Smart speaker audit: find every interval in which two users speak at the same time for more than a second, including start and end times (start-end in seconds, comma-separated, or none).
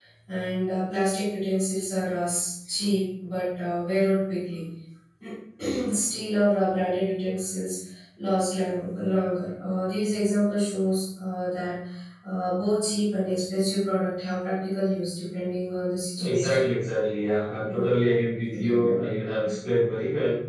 none